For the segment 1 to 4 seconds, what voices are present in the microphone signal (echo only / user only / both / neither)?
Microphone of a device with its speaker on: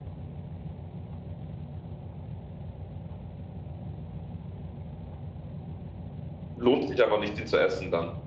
neither